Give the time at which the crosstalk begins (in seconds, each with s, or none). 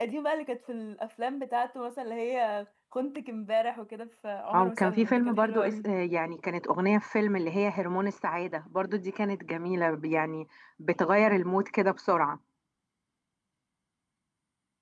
4.5 s